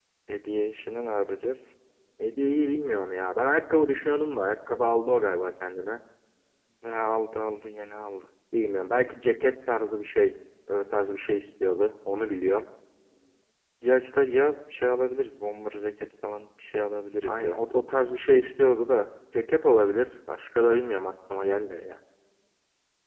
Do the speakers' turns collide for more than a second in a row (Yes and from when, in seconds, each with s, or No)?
No